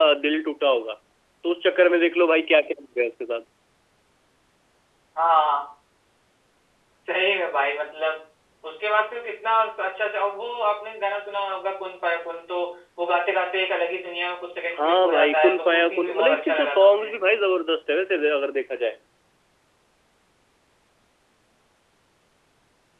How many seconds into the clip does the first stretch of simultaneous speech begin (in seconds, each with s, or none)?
14.8 s